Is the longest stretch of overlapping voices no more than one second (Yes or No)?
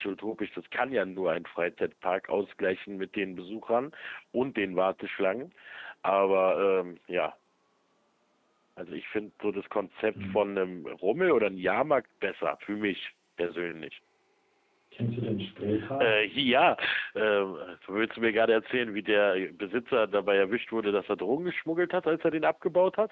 Yes